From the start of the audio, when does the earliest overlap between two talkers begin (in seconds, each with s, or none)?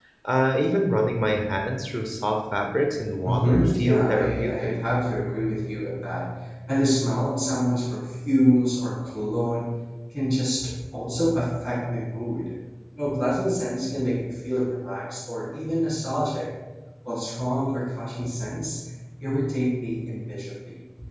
3.2 s